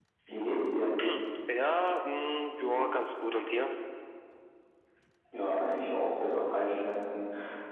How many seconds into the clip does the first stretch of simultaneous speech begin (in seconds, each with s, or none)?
none